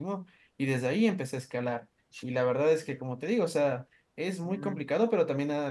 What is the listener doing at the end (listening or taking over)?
listening